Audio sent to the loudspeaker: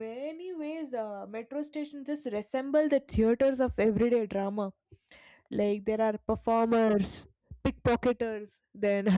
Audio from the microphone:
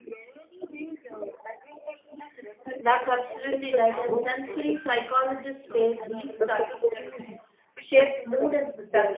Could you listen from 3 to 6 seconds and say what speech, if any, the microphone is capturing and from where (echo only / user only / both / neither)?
both